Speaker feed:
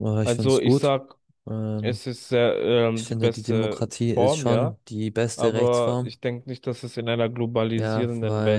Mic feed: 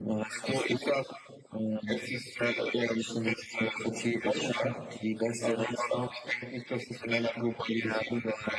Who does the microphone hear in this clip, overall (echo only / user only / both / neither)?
echo only